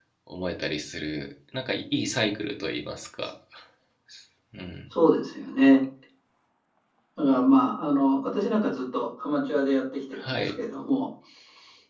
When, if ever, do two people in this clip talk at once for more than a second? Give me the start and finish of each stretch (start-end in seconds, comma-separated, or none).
none